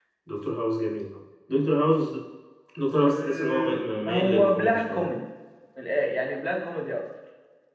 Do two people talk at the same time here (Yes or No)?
Yes